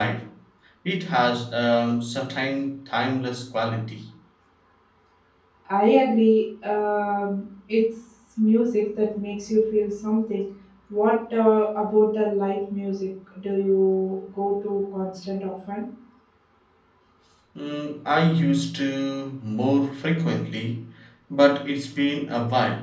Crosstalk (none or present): none